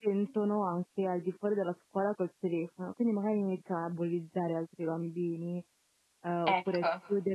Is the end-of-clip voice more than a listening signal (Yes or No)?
No